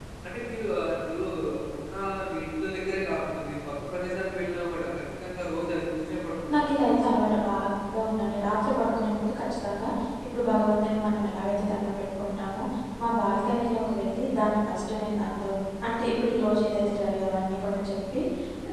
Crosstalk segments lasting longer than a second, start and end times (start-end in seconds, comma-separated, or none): none